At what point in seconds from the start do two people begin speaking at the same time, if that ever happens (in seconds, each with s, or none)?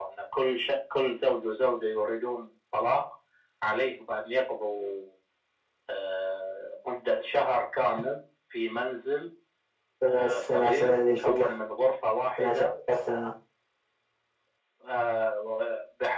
10.1 s